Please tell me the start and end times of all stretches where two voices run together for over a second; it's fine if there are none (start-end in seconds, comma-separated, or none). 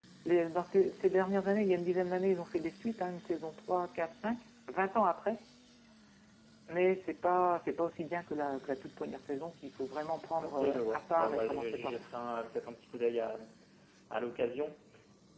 10.4-12.0